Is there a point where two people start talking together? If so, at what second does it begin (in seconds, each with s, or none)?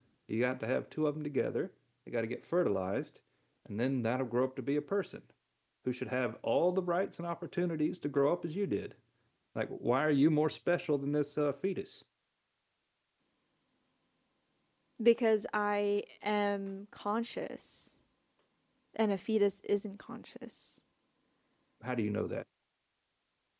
none